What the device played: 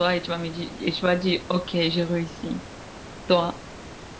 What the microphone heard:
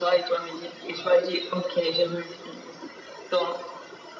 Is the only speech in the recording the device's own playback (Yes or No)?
Yes